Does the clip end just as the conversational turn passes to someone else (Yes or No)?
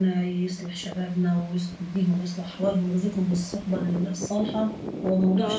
No